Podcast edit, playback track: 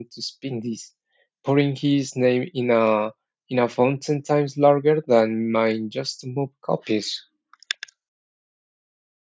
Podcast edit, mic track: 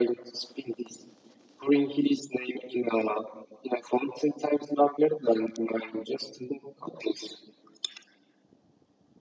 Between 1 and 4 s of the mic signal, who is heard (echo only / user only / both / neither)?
echo only